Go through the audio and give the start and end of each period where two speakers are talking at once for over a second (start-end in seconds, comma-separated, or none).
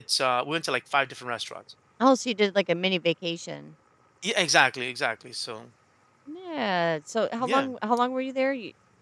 none